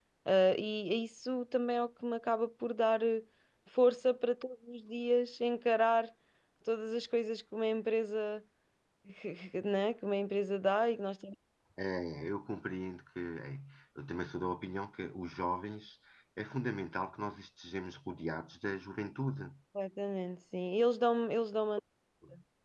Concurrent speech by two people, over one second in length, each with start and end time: none

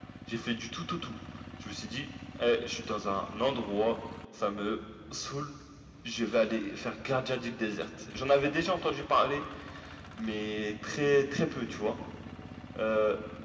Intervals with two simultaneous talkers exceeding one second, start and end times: none

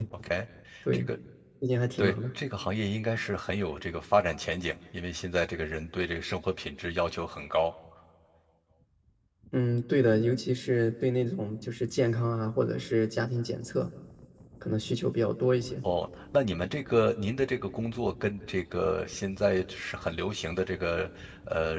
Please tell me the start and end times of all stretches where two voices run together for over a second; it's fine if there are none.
none

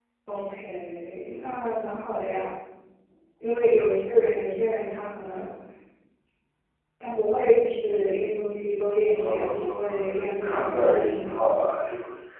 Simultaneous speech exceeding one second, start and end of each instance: 9.1-11.6

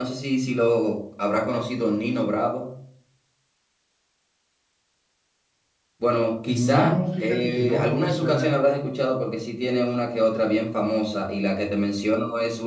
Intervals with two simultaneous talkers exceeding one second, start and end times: 6.7-8.5

